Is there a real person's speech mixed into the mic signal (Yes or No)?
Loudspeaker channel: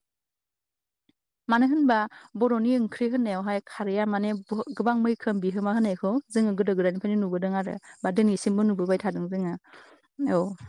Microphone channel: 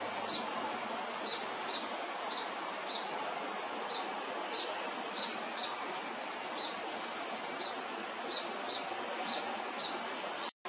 No